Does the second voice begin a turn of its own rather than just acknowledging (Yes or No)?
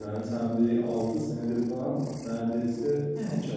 Yes